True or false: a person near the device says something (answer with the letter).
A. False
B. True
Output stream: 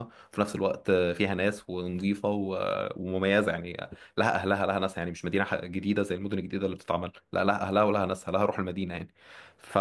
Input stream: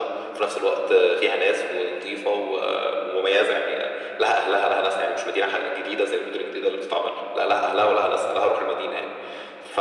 A